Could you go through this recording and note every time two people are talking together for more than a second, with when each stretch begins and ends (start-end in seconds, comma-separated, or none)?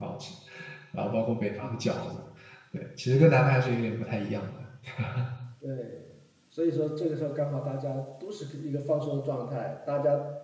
none